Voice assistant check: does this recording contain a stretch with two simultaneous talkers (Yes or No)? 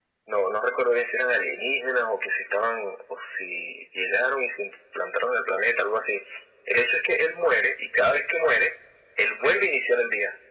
No